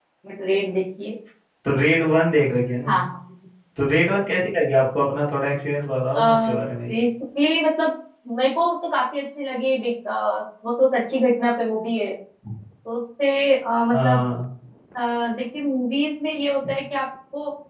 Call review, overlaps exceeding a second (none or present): none